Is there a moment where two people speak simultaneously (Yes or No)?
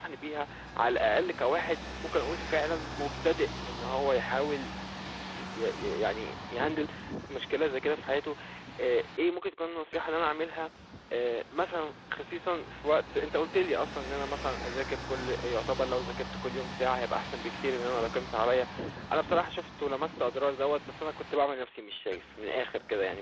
No